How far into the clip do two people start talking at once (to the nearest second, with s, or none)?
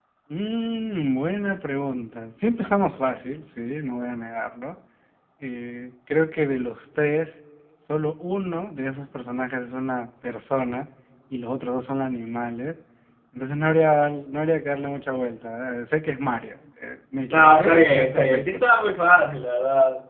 17 s